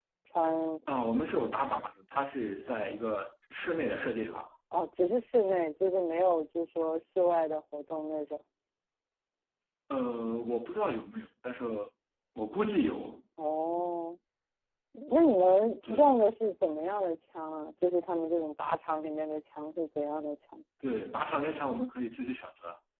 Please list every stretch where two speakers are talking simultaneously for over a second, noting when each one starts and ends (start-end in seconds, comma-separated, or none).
none